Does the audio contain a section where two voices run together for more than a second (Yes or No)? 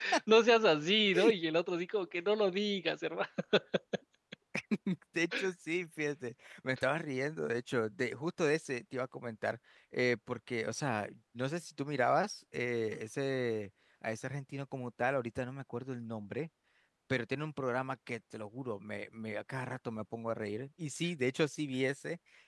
No